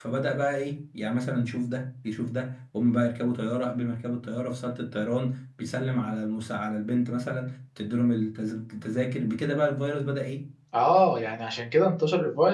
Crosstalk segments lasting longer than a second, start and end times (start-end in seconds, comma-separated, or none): none